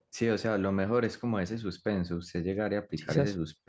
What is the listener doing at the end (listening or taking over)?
listening